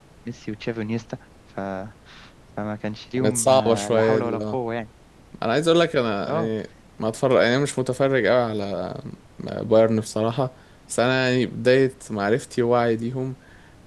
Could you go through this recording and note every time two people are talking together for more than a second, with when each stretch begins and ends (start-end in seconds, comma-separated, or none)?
3.2-4.6